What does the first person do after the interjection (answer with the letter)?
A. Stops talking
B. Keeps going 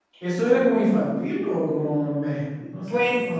A